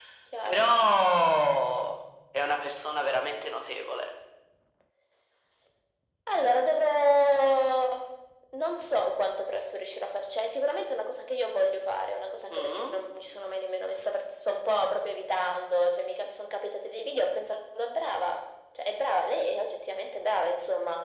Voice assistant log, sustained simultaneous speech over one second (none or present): none